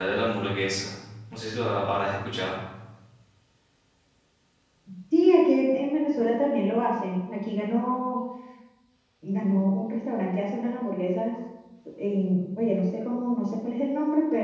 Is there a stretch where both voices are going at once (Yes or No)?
No